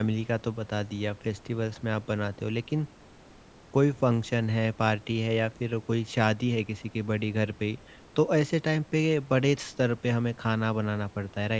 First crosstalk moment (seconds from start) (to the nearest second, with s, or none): none